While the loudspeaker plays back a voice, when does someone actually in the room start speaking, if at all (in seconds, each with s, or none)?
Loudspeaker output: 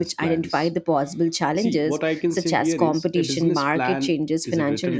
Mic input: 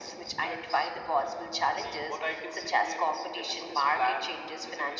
none